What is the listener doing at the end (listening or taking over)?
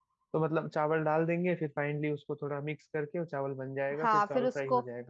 taking over